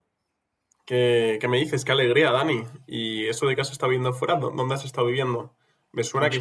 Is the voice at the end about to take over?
No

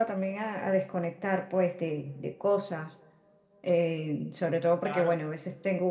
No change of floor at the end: Yes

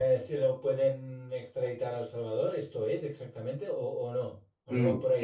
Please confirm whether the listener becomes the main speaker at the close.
Yes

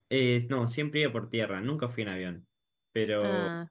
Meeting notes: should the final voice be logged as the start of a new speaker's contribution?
No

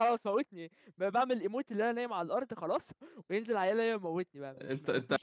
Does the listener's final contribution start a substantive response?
Yes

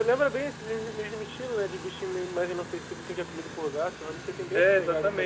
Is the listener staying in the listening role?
No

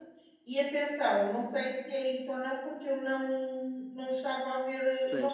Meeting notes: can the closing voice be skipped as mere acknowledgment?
Yes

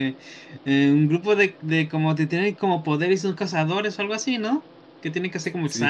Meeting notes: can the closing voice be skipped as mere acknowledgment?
No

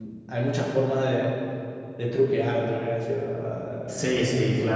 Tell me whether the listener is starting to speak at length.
Yes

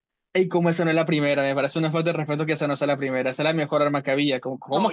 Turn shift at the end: Yes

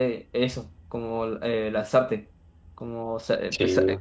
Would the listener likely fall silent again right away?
Yes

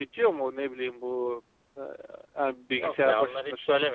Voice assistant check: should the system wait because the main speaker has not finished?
No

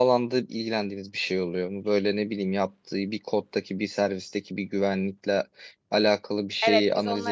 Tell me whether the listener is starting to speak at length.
Yes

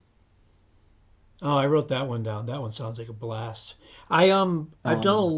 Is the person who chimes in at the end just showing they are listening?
Yes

